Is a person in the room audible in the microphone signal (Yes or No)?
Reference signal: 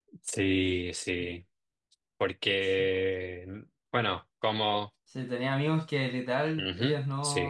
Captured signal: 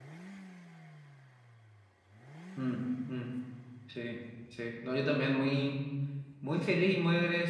Yes